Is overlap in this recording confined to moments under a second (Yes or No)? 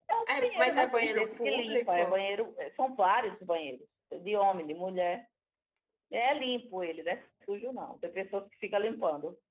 No